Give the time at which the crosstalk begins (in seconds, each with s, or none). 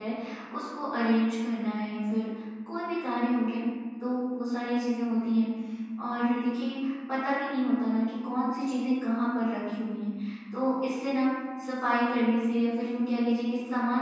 none